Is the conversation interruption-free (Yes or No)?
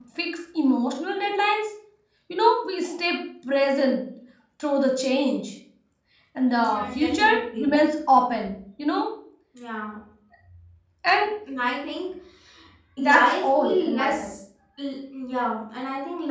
No